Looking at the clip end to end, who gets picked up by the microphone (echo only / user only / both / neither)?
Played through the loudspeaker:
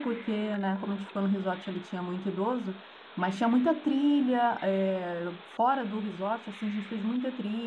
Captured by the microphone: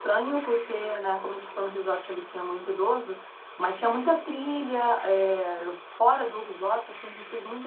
echo only